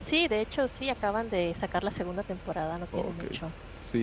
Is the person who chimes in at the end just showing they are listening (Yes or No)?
No